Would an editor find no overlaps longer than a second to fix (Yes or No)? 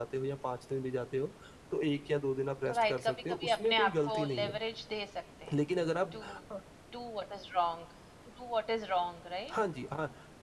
No